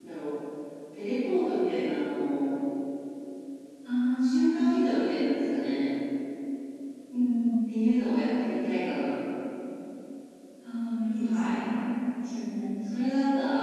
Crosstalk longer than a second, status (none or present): none